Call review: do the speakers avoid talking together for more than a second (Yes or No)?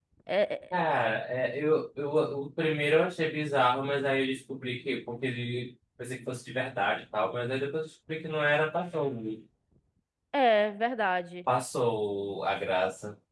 Yes